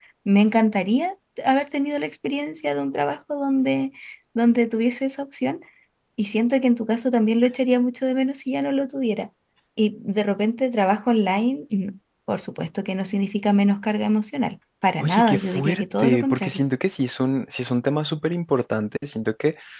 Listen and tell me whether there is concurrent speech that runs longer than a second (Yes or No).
Yes